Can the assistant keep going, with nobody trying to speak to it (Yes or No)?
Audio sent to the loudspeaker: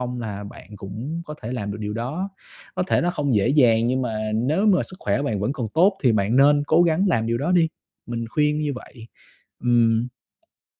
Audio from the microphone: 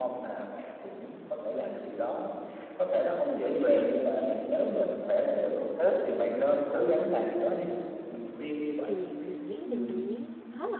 No